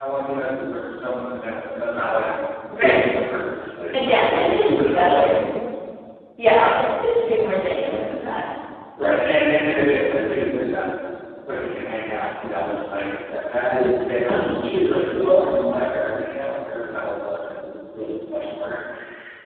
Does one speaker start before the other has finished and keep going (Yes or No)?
Yes